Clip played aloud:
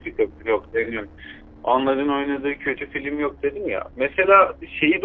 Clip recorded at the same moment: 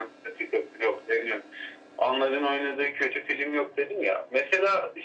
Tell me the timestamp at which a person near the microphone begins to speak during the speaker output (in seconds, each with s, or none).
none